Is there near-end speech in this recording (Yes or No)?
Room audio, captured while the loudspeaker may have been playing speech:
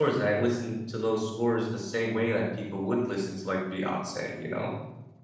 Yes